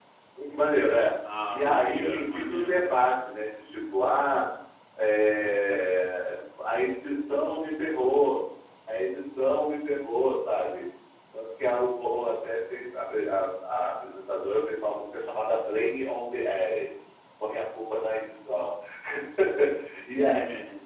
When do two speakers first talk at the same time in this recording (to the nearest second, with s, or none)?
2 s